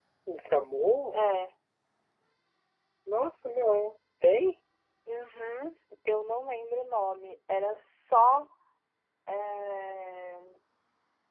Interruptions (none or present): none